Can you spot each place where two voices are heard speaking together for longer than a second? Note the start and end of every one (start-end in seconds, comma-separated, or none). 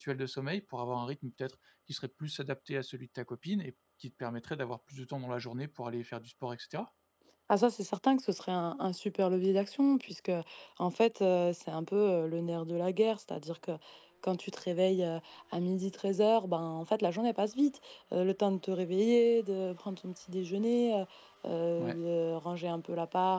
none